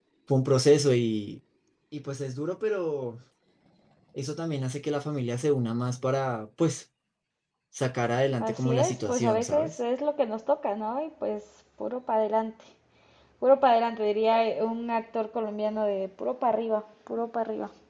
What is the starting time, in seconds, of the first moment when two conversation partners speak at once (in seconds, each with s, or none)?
8.4 s